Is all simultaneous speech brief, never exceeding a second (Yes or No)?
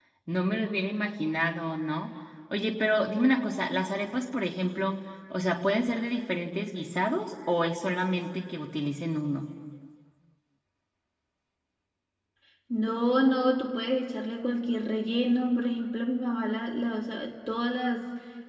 Yes